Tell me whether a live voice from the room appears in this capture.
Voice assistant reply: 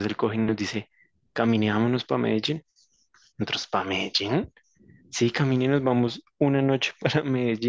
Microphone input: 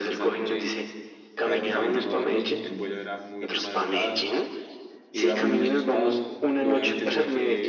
Yes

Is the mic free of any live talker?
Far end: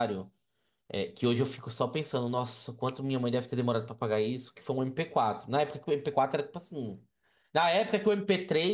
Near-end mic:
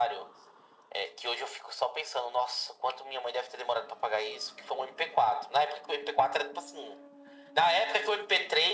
Yes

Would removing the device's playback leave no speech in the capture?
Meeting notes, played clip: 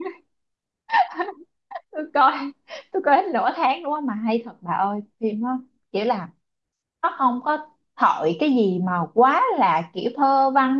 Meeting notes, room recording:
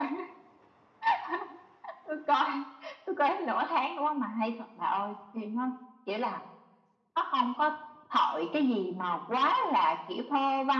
Yes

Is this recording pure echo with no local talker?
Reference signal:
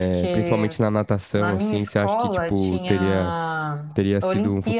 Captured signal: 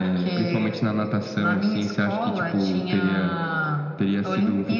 Yes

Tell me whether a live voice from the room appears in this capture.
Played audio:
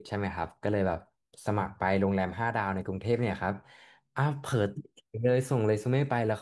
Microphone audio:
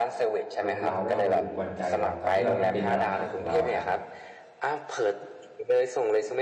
Yes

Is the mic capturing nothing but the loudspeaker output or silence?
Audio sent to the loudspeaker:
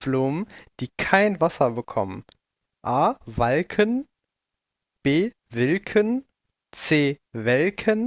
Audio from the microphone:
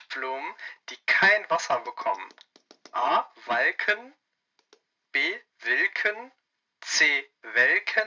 Yes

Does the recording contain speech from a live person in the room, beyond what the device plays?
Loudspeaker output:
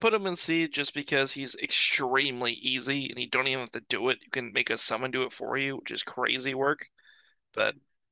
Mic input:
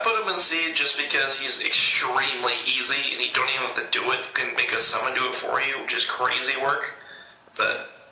No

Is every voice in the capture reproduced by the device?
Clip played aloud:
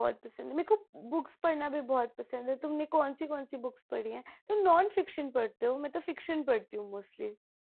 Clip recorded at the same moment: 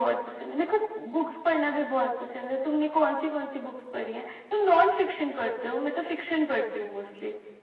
Yes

